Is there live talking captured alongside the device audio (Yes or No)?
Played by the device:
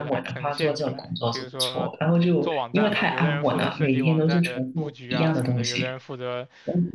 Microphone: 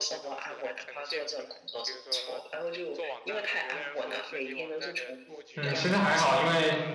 Yes